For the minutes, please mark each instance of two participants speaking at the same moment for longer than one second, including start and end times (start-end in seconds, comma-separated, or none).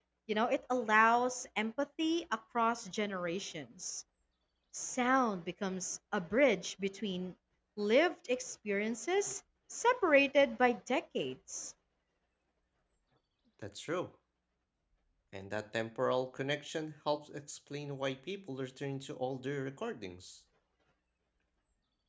none